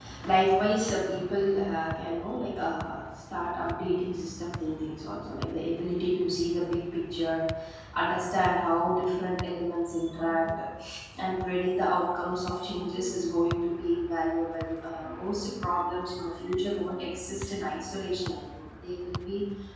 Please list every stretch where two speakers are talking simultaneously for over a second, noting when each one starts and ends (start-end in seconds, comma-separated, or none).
none